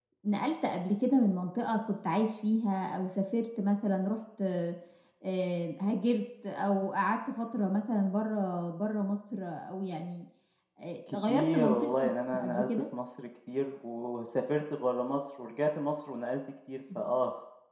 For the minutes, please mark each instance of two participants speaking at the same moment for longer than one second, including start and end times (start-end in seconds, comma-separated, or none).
11.1-12.7